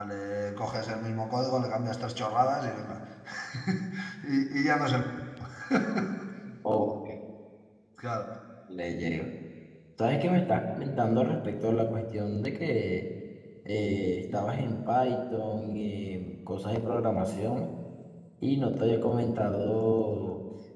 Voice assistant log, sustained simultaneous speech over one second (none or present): none